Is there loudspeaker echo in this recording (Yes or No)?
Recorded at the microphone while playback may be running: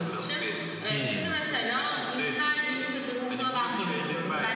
Yes